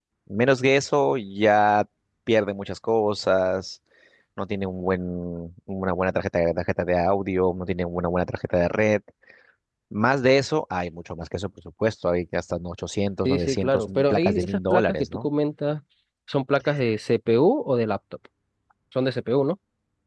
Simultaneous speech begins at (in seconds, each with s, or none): 13.2 s